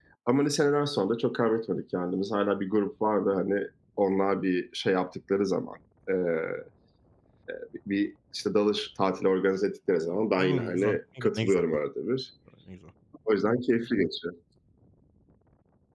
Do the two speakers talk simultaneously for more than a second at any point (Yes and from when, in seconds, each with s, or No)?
Yes, from 10.4 s